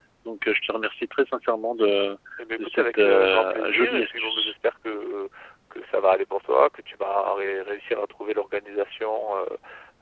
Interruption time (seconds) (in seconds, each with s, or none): 2.6 s